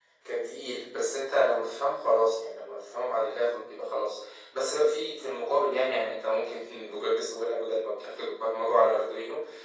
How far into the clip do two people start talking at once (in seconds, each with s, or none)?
none